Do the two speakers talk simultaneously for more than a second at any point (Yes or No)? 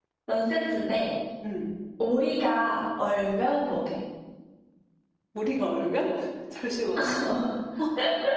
No